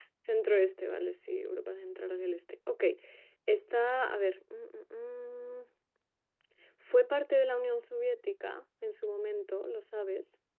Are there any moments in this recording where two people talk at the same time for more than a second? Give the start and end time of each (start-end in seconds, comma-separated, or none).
none